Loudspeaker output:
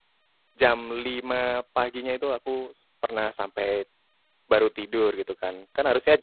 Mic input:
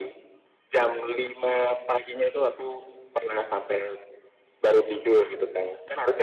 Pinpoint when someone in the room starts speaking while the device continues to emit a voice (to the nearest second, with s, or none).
none